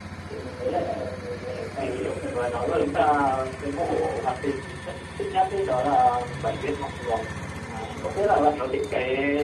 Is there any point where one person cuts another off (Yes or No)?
Yes